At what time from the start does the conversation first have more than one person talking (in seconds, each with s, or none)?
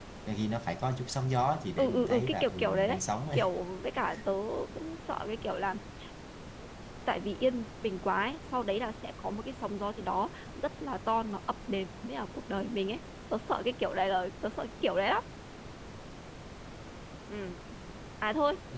1.8 s